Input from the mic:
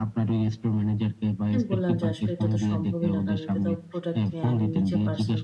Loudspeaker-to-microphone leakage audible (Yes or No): Yes